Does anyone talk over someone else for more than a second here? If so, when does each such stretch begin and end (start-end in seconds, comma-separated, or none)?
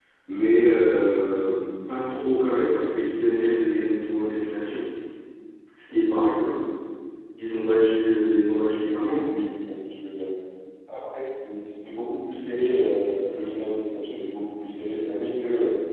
none